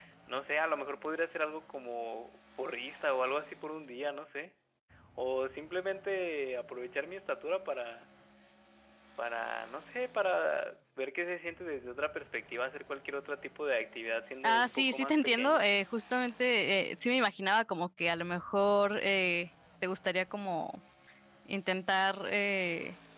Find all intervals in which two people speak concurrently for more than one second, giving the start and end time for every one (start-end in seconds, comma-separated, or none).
14.4-15.7